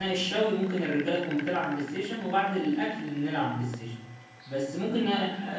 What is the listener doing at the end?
listening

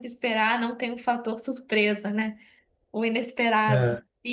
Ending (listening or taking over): listening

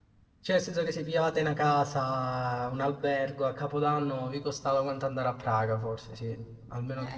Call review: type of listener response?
taking over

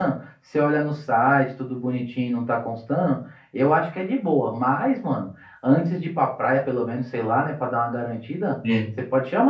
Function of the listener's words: listening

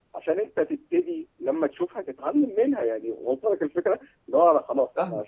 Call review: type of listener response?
listening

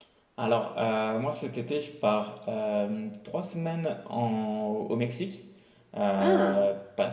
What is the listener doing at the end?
listening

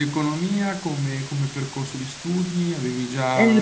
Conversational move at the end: taking over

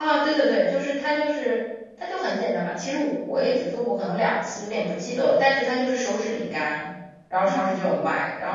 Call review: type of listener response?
listening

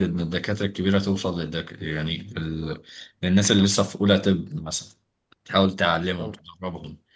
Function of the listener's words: listening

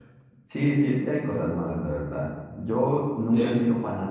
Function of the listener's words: listening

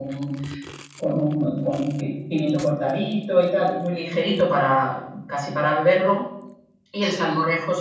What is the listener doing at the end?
listening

